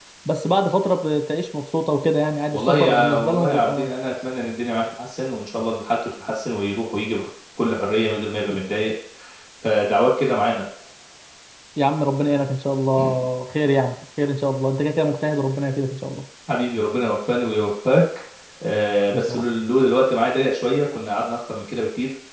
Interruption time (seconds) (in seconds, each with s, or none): 2.5 s